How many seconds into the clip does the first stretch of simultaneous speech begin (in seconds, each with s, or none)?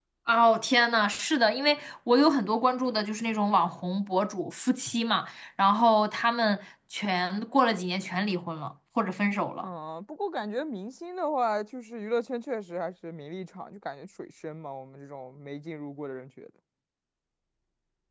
none